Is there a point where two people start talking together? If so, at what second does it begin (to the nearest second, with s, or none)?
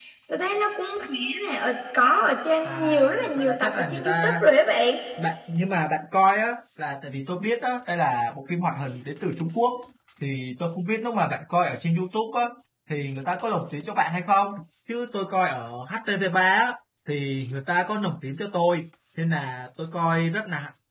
3 s